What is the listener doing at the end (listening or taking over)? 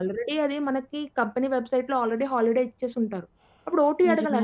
listening